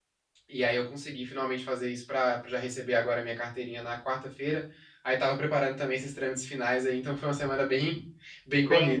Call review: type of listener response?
taking over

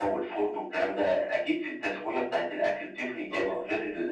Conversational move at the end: listening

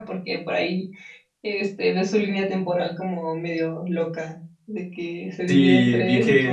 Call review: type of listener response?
taking over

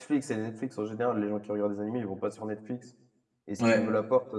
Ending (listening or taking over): listening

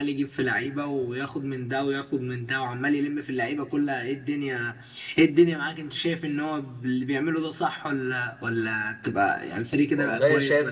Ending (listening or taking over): taking over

